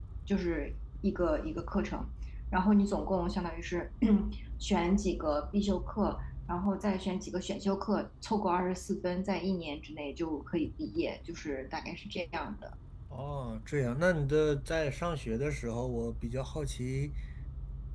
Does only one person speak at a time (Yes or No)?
Yes